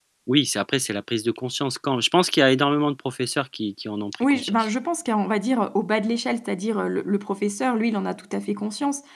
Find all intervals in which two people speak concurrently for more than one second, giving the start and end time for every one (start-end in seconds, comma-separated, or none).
none